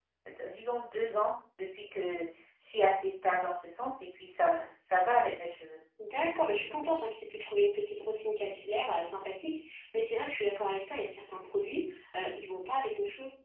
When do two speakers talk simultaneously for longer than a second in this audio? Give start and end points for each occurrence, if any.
none

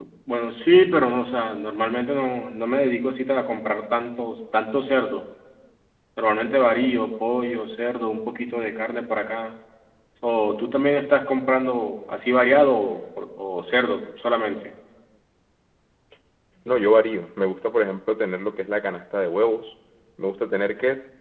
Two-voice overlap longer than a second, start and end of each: none

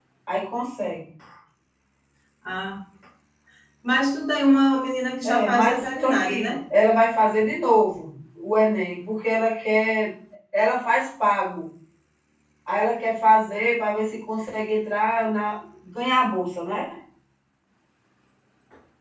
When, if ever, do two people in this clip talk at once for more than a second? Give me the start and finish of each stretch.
5.2-6.6

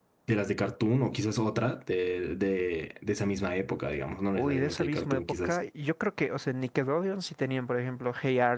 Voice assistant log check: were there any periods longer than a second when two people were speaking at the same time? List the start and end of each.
4.4-5.6

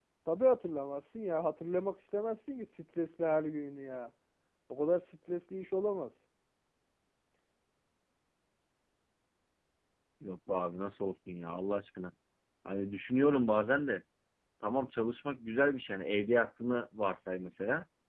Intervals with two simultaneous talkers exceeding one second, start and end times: none

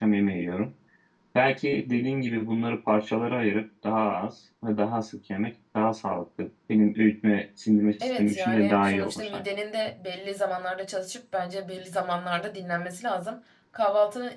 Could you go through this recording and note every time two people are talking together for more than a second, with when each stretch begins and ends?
8.0-9.4

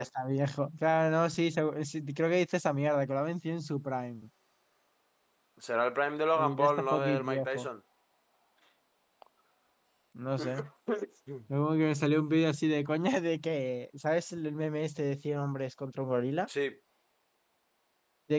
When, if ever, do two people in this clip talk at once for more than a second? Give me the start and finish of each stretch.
6.3-7.7

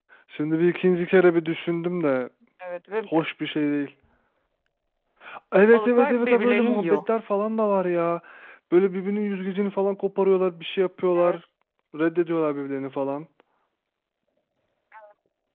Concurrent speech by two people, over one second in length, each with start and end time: 5.7-7.0

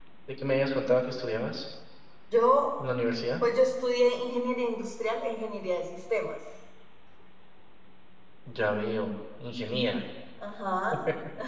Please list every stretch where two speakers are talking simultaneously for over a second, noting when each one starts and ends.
none

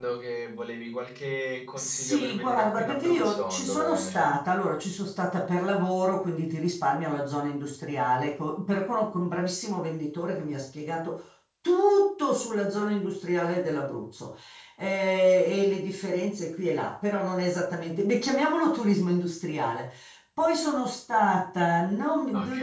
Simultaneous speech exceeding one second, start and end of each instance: 1.8-4.3

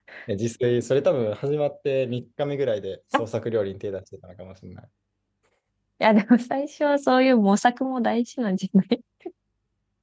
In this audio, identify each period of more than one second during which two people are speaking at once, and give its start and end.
none

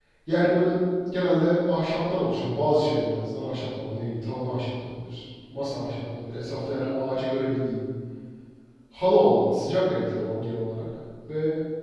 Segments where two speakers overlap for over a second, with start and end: none

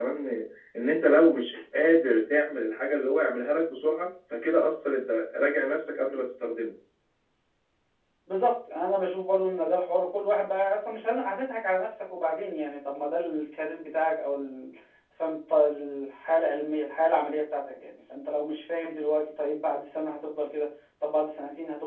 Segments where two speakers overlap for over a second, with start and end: none

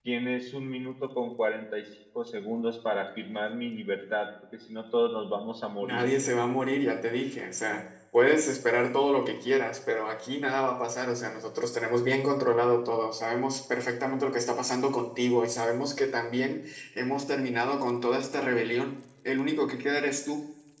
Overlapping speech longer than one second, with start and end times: none

